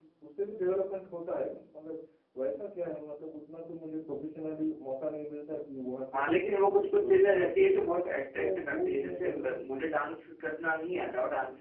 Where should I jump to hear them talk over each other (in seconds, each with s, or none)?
6.1 s